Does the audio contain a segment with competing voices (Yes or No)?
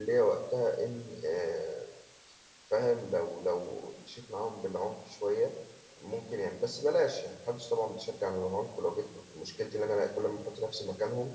No